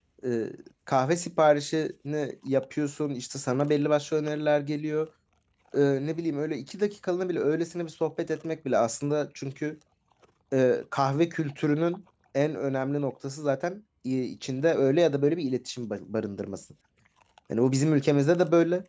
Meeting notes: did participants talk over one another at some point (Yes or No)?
No